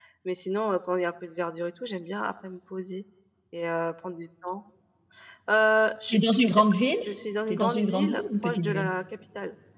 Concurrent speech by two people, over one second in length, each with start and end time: 7.5-8.9

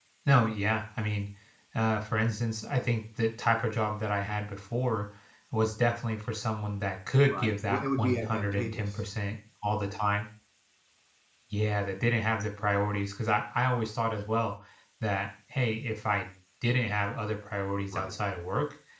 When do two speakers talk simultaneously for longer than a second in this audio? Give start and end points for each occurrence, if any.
7.3-8.8

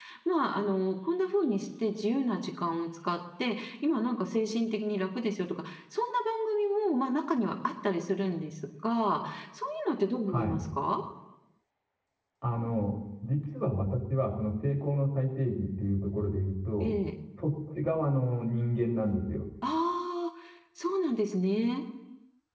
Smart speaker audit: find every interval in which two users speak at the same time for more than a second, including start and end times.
none

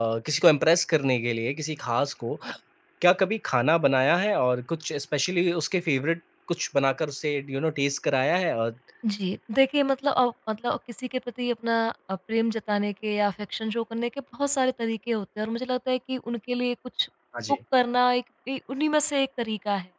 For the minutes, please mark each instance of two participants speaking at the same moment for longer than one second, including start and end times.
none

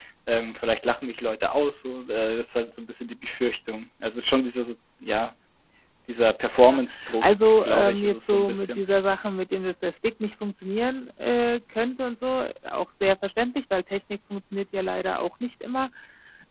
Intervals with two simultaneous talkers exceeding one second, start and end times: 6.6-8.8

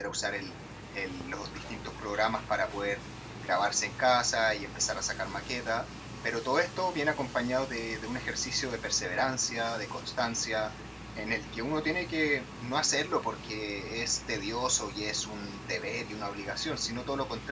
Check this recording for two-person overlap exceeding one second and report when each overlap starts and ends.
none

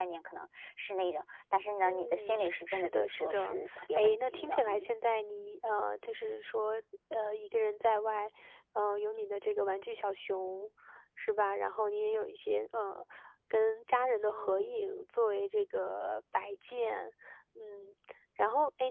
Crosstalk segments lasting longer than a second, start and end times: 1.8-4.9

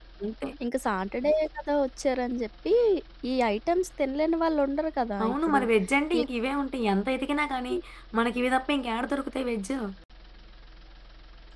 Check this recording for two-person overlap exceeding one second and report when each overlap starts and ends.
none

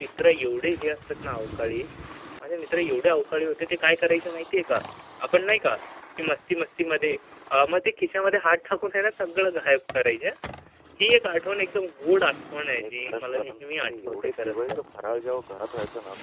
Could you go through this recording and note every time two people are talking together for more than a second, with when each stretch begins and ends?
12.7-14.8

